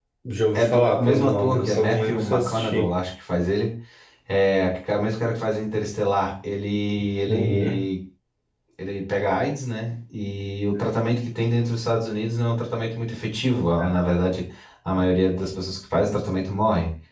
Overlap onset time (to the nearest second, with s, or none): 1 s